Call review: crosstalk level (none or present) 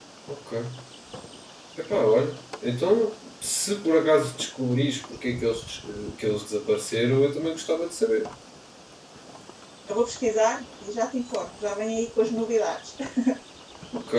none